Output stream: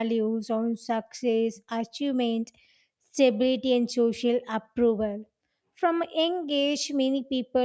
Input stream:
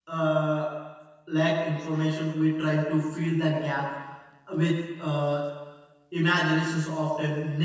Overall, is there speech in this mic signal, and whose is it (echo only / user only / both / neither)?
user only